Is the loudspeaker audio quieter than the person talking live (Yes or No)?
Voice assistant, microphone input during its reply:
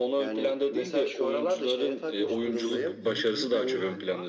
No